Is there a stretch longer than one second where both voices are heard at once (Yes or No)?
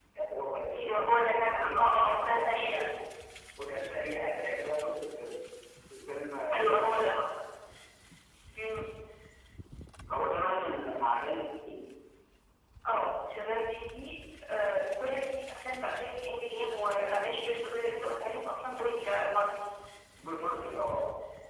Yes